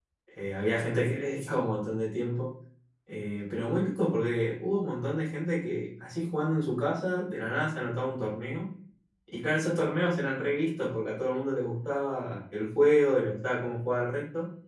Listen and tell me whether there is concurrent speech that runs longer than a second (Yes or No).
No